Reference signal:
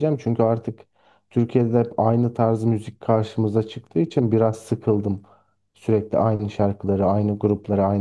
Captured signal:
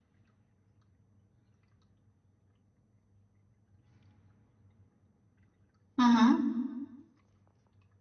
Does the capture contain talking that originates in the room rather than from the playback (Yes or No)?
Yes